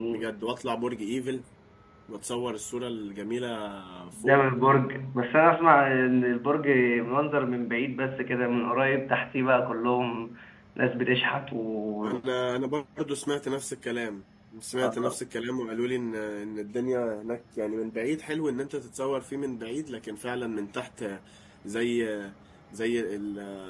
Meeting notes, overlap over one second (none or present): none